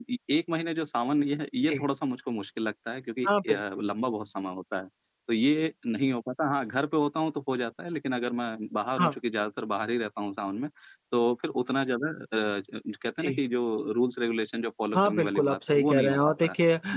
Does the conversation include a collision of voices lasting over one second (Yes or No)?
Yes